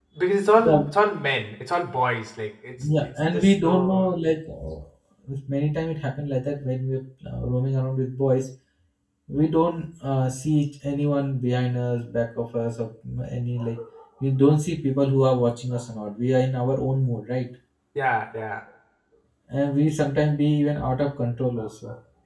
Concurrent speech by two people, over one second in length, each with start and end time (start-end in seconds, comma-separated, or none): 2.8-4.1